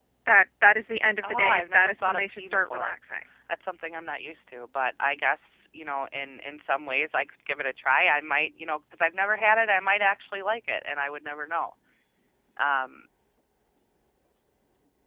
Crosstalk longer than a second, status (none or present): present